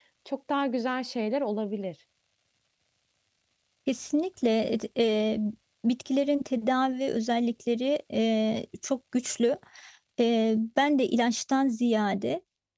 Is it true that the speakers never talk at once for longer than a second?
Yes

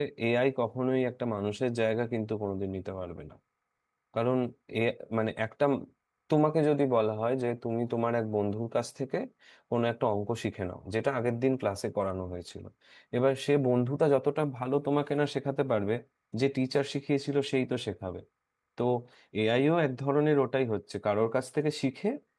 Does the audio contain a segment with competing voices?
No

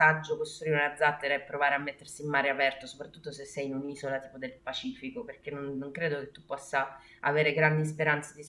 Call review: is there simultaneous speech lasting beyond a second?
No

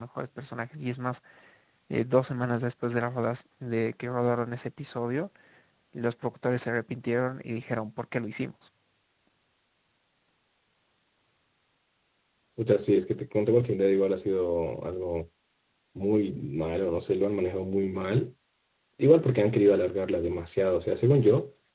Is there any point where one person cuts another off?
No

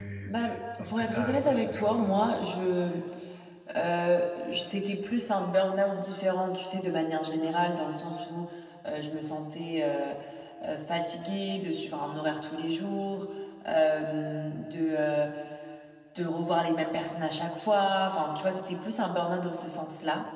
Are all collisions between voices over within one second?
No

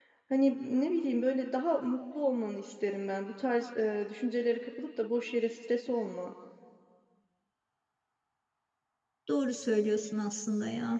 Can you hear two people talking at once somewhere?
No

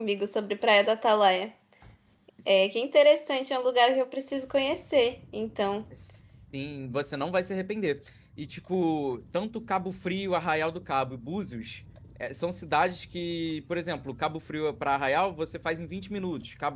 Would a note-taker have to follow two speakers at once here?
No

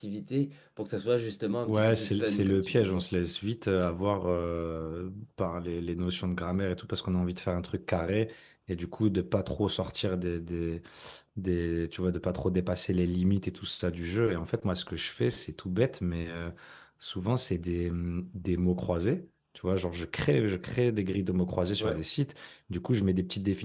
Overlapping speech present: Yes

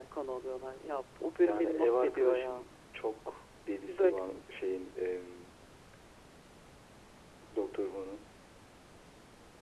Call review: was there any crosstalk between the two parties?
Yes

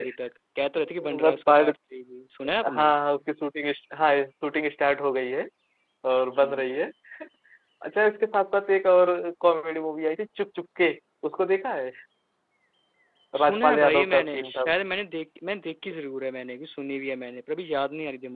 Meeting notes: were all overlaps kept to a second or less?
No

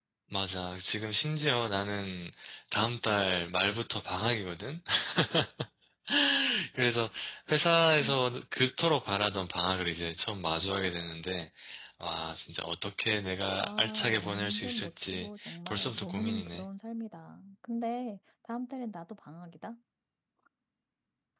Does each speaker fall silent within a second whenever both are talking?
No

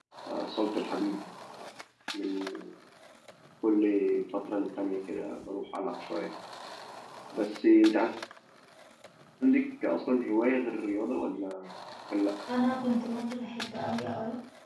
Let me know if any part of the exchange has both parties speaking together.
No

